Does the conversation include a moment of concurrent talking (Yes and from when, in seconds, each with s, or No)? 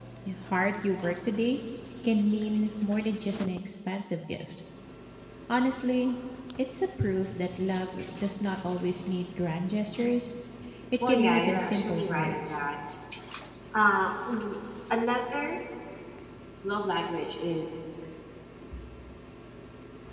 Yes, from 11.0 s